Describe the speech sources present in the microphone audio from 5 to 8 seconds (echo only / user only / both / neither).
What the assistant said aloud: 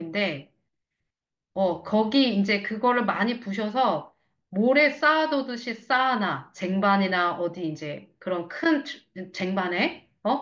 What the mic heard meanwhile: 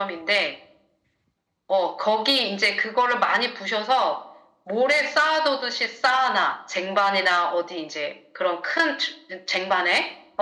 echo only